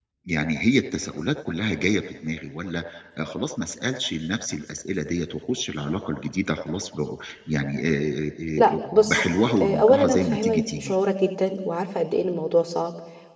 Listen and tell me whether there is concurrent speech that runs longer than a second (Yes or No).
Yes